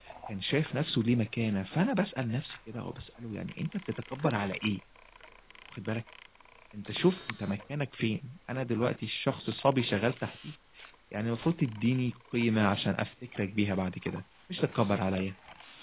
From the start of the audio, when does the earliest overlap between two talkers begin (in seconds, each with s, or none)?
none